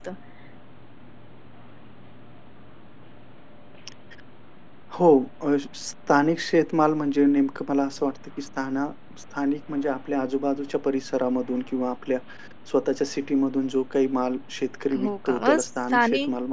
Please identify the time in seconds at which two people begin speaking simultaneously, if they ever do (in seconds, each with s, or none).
14.9 s